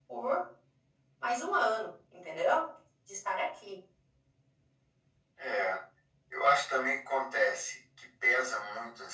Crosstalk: none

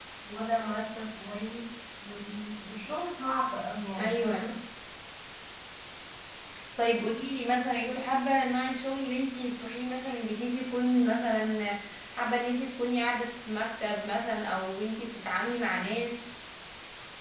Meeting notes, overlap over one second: none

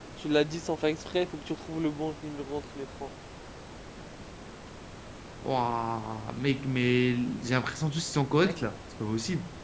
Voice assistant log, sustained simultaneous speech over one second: none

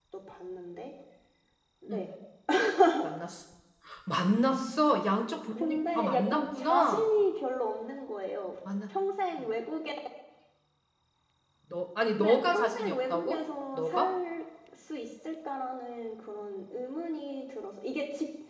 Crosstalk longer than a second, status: present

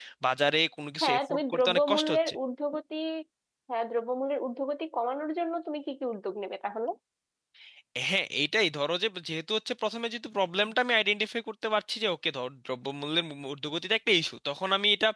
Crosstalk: present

